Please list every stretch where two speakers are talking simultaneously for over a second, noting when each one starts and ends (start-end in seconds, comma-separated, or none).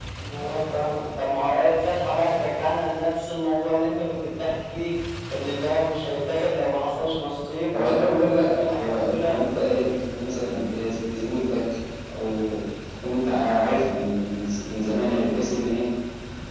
7.8-9.4